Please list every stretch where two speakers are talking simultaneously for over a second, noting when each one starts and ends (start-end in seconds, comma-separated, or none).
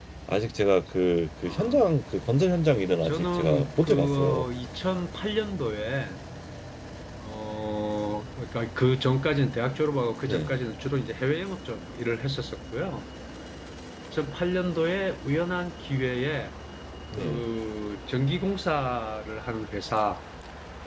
3.0-4.5